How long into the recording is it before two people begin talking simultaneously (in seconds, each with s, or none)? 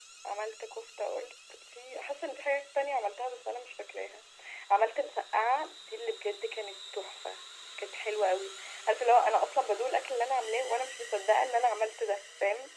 none